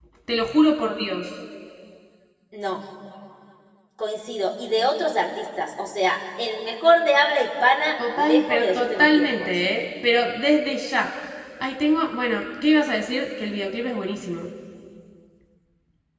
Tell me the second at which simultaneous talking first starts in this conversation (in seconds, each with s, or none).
8.0 s